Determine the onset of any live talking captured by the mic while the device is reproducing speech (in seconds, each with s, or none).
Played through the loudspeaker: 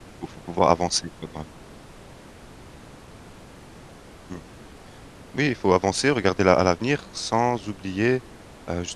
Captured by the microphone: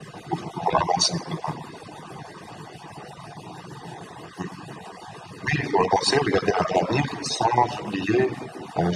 none